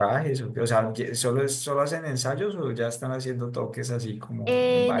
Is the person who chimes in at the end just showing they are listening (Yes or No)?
No